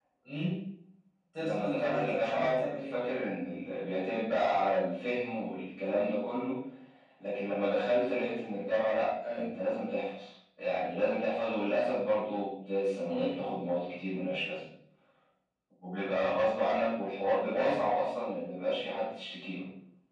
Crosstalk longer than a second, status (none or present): present